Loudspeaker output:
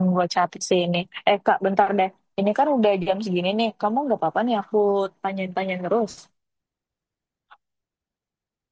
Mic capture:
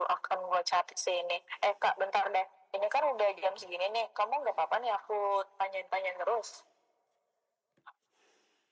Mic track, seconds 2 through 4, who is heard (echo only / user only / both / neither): echo only